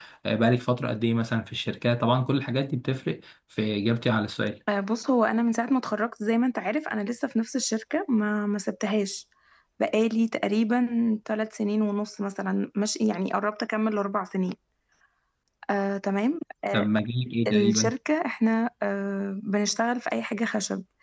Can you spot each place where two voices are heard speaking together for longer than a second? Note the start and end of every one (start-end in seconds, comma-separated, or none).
none